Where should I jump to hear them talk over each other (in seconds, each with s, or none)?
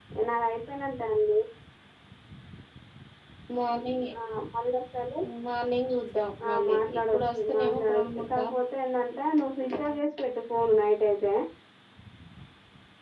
6.5 s